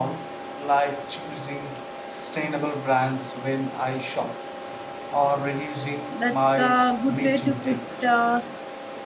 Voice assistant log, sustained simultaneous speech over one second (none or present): present